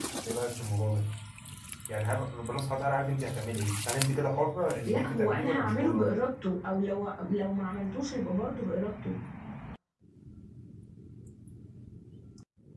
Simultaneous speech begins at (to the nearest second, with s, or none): 5 s